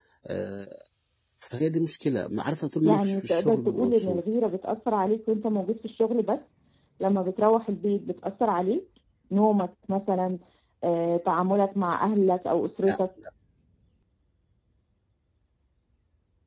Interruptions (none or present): present